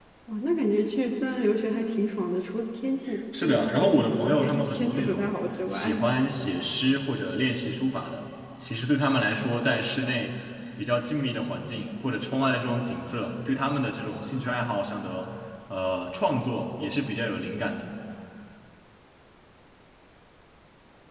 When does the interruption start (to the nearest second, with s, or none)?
3 s